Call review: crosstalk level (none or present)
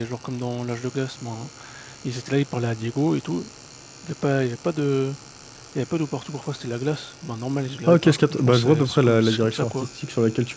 present